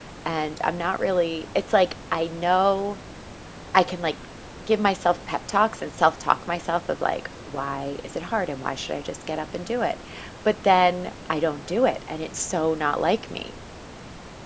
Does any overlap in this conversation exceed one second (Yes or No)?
No